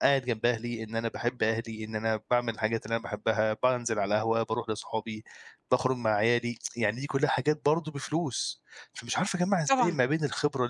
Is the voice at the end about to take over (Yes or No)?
No